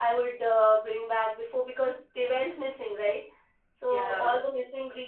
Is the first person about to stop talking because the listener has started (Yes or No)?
No